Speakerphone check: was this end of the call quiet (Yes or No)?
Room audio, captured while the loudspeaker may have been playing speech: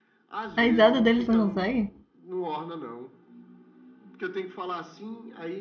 No